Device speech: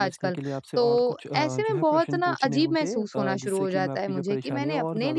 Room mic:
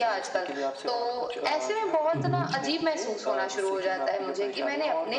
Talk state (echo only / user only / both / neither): both